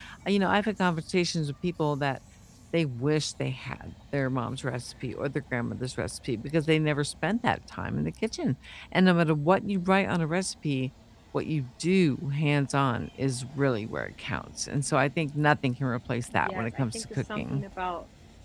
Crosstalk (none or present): present